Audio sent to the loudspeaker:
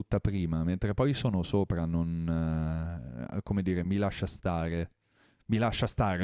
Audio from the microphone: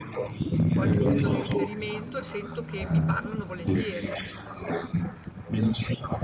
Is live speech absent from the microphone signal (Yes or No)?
No